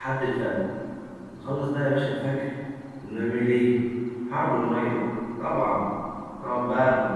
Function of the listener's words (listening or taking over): listening